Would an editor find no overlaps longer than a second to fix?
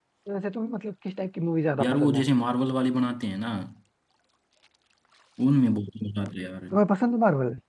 Yes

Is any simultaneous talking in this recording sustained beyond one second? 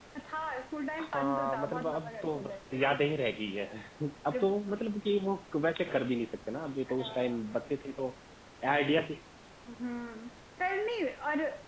Yes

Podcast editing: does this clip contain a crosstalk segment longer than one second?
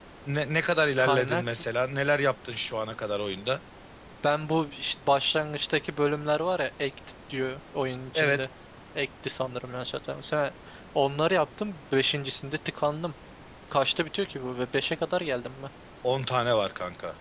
No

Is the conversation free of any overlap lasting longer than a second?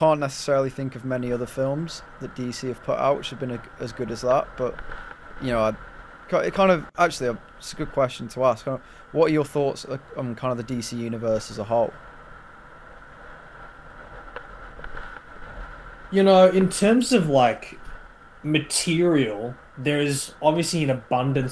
Yes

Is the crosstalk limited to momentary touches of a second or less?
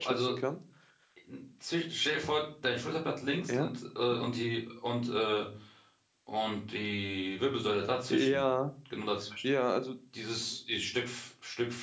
Yes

